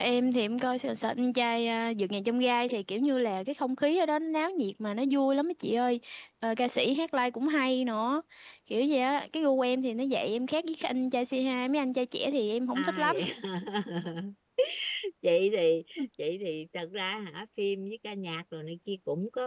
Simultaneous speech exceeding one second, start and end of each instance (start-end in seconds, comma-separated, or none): none